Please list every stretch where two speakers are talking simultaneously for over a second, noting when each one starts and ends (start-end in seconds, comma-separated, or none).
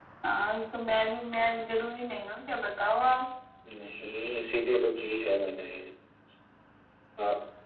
none